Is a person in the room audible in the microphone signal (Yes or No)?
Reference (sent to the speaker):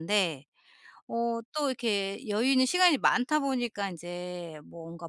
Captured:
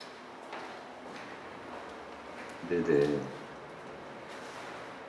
Yes